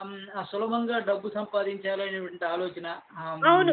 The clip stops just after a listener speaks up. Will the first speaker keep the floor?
No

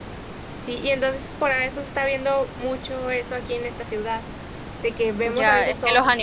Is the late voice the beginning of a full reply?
Yes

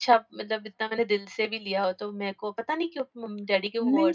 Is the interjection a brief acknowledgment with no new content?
No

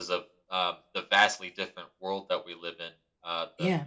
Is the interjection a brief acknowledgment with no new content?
Yes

